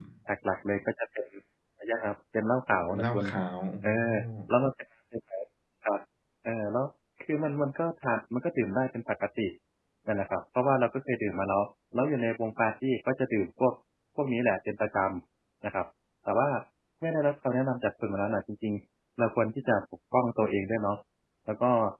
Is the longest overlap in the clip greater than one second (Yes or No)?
No